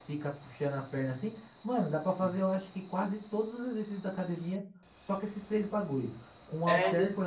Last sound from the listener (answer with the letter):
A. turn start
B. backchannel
B